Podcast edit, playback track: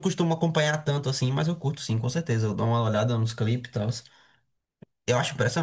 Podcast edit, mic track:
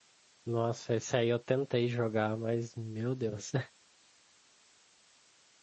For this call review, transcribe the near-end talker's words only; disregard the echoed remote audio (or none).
Nossa, esse aí eu tentei jogar, mas meu Deus.